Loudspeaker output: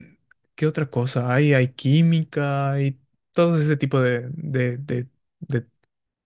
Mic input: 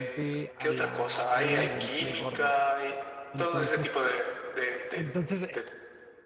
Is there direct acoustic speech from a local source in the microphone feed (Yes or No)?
Yes